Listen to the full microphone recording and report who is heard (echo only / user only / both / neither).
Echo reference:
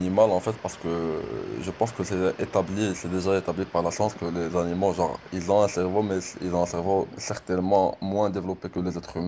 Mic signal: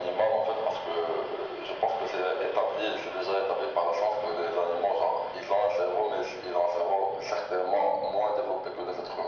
echo only